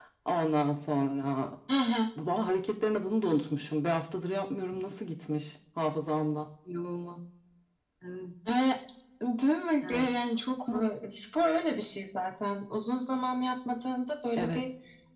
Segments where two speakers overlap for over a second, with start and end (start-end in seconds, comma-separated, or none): none